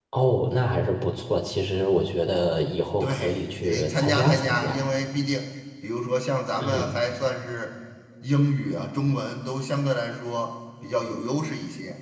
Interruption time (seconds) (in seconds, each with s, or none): 3.0 s